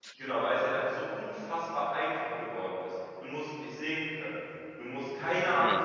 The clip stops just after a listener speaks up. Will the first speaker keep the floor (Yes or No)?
Yes